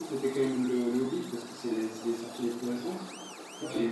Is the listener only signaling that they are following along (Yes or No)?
Yes